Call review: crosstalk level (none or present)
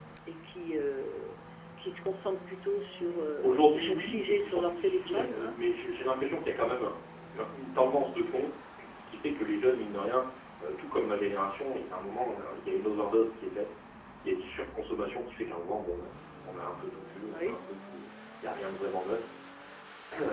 present